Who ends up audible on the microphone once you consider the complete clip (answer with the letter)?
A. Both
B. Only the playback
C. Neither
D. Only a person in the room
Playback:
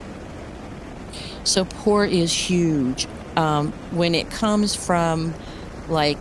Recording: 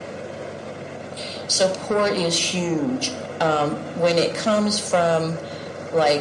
B